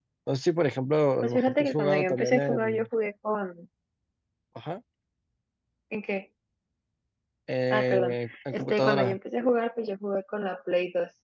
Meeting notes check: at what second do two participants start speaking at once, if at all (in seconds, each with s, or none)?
1.2 s